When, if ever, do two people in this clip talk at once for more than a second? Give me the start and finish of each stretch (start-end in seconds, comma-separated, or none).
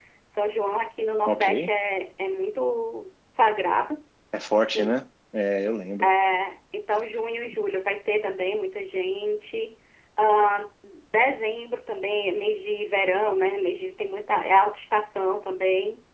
none